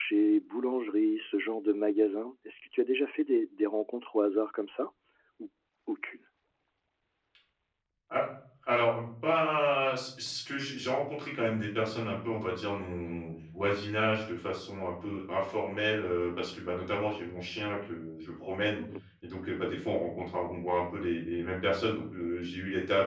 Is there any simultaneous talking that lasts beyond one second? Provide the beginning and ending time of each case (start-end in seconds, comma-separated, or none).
none